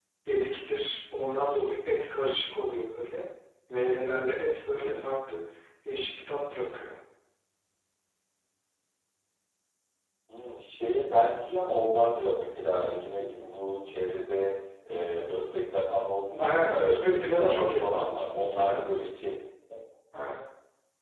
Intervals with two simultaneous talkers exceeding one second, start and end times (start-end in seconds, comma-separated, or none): 16.4-18.8